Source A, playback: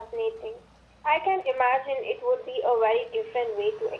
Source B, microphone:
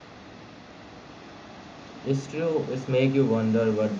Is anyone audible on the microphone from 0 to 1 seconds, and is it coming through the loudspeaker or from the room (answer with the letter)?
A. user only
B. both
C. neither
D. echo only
C